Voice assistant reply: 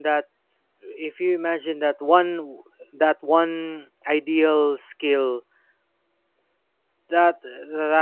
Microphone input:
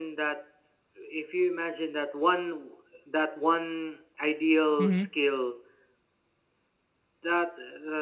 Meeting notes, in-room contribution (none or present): present